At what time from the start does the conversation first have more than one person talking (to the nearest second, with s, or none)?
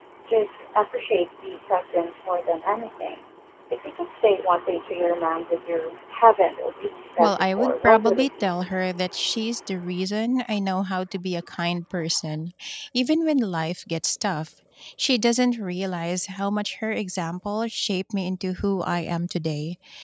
7 s